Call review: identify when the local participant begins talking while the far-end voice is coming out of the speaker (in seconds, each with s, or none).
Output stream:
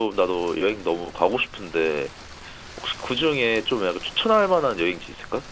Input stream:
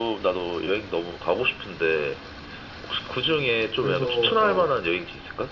3.7 s